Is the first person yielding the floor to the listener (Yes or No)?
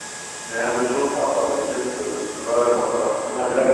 Yes